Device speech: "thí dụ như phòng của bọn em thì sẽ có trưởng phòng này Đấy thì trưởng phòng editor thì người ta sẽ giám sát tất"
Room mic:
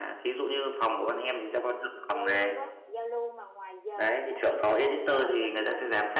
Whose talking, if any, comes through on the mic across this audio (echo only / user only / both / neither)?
both